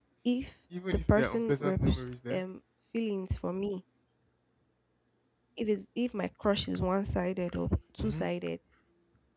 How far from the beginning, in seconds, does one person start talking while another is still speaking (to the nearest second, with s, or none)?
1 s